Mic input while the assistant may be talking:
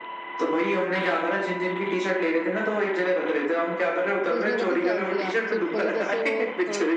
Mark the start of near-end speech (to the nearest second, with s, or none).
4 s